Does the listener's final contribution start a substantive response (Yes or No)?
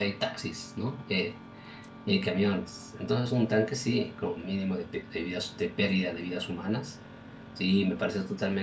No